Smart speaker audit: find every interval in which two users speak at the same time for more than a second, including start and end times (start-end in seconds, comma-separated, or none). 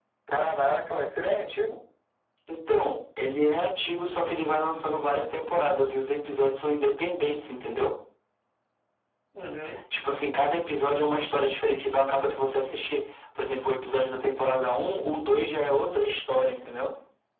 none